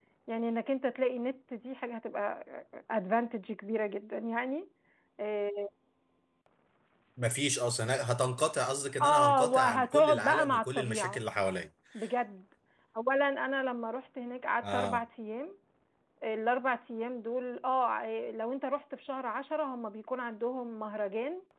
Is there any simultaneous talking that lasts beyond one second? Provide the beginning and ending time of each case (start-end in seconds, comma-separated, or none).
9.0-11.2